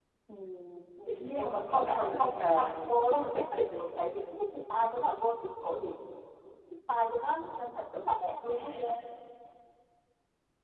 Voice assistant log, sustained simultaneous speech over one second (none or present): present